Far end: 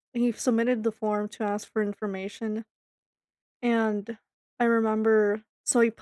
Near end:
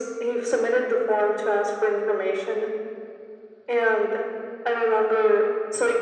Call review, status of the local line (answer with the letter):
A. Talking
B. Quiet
B